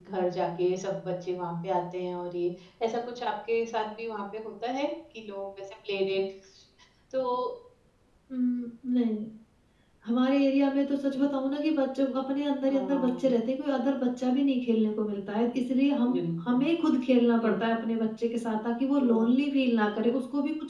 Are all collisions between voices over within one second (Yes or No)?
Yes